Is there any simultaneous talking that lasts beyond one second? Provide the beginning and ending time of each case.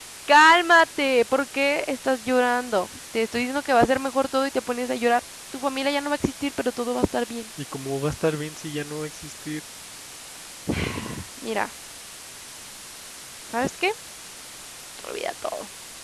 none

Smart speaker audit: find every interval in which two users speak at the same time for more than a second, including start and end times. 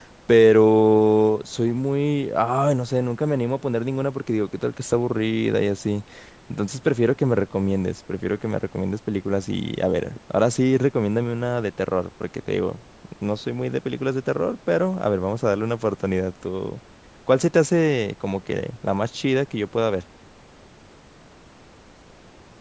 none

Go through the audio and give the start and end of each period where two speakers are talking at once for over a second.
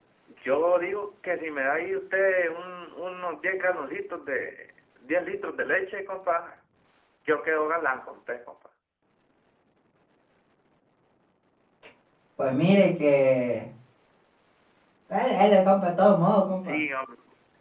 none

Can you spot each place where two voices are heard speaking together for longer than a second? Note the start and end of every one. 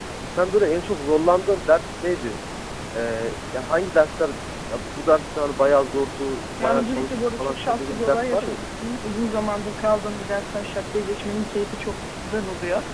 6.6-8.6

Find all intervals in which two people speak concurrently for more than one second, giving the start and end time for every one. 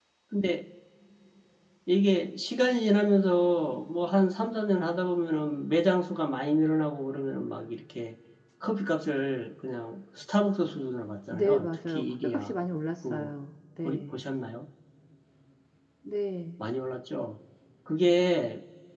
11.3-12.5

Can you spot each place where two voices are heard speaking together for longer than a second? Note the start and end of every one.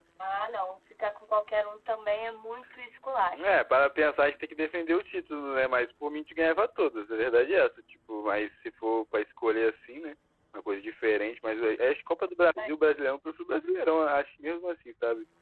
none

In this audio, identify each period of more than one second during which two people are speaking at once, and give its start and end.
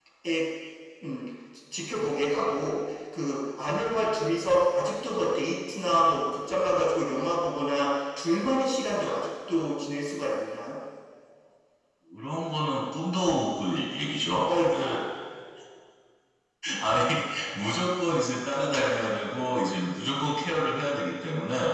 none

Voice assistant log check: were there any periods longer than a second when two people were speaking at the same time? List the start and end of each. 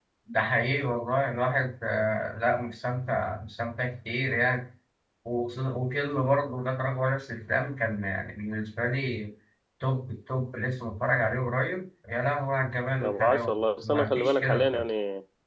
13.0-14.9

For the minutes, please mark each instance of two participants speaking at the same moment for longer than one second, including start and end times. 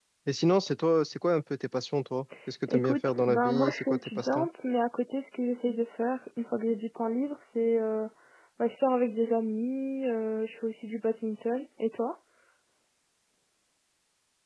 2.7-4.5

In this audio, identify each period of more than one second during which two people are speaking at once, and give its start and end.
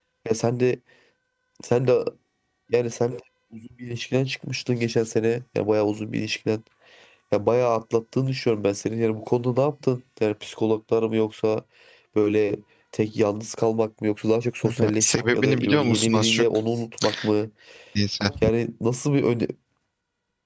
14.6-16.4

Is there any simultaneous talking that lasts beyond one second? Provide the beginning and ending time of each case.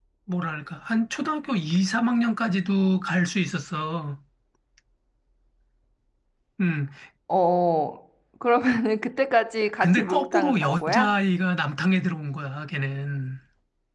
9.8-11.2

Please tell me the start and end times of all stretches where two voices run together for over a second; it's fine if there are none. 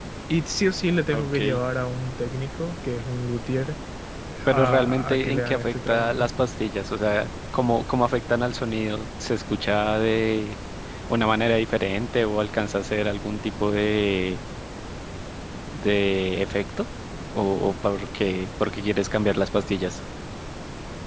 4.5-6.3

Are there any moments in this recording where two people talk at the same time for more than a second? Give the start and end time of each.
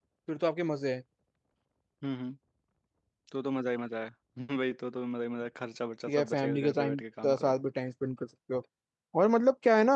6.1-7.5

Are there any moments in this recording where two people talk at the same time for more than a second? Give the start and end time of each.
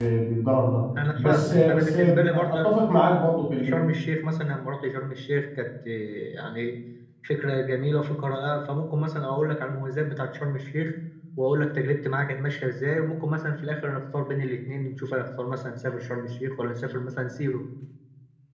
1.2-2.7

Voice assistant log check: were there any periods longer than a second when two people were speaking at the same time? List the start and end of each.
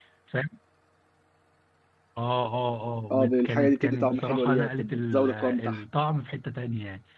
3.1-5.8

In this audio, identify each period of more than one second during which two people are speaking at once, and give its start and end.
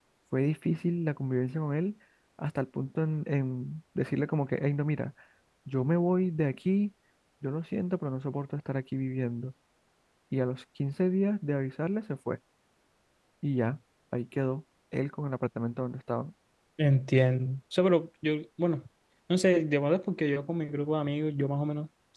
none

